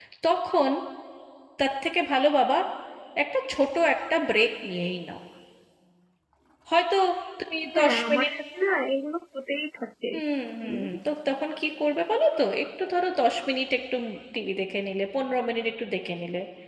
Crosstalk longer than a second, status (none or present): none